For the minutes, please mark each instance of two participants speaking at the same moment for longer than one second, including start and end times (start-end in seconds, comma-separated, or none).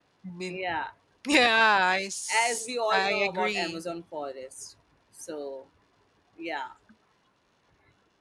2.3-3.8